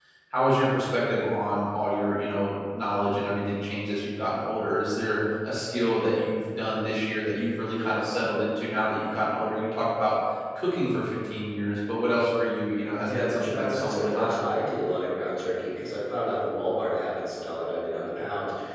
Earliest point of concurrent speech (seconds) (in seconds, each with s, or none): 13.1 s